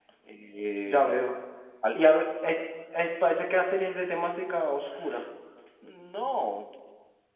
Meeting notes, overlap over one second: none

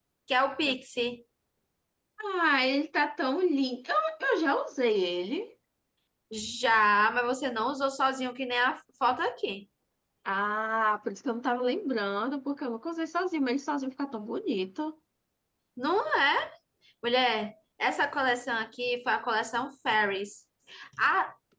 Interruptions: none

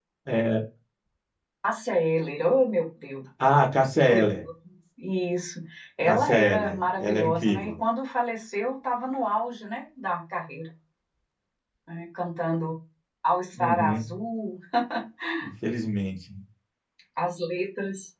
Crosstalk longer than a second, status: present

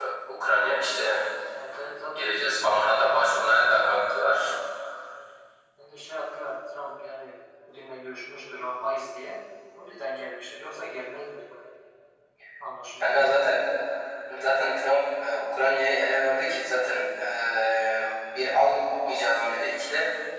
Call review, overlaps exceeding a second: present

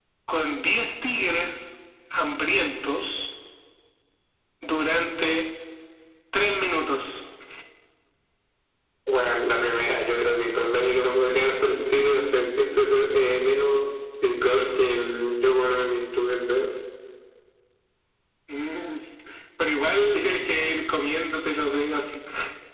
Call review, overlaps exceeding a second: none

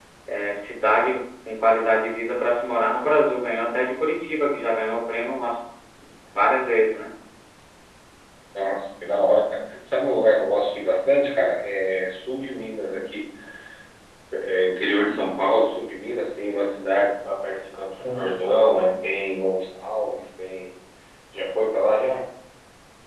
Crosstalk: none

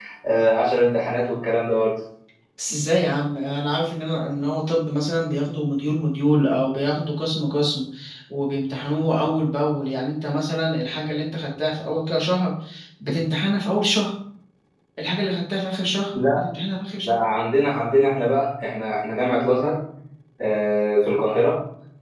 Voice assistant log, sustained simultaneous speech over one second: none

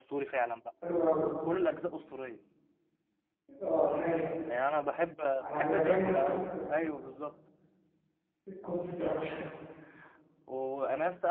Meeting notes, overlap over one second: present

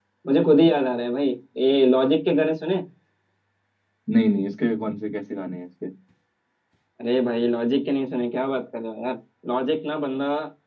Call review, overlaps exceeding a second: none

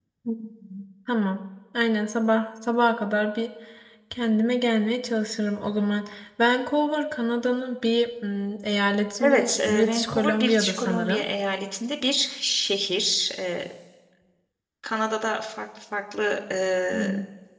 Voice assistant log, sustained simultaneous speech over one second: present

